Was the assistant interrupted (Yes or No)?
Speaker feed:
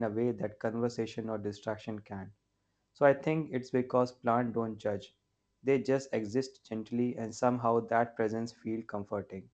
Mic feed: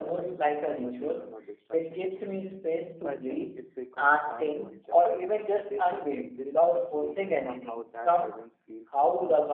Yes